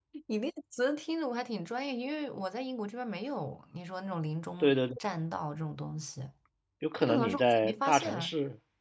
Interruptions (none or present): present